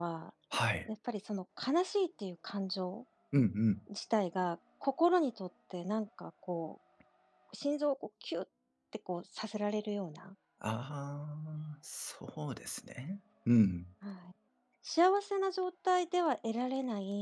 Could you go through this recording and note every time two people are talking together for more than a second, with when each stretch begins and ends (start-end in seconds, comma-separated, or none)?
none